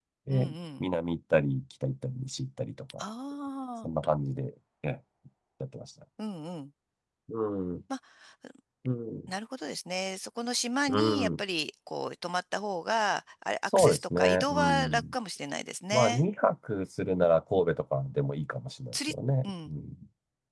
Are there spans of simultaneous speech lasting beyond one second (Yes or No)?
Yes